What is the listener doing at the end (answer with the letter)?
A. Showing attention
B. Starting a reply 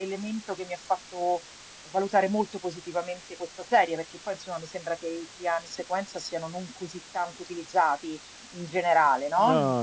B